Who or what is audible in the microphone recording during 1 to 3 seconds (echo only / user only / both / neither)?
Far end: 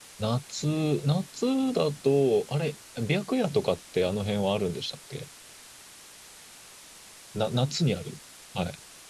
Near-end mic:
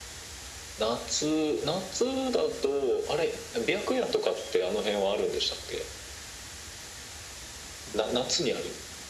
echo only